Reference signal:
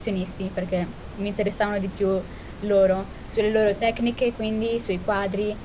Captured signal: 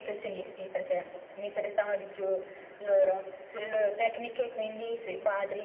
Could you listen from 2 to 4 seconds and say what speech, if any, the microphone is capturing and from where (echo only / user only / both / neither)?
echo only